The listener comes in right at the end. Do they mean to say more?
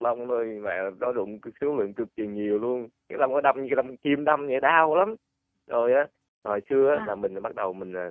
No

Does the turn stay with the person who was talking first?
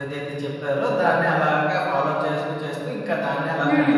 No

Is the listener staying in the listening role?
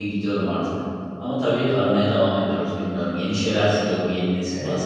No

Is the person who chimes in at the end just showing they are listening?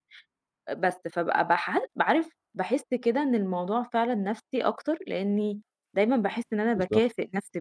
Yes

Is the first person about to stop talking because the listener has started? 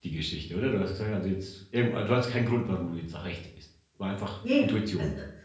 Yes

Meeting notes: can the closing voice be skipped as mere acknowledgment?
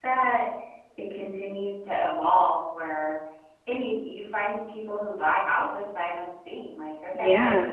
Yes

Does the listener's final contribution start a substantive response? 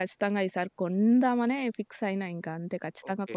Yes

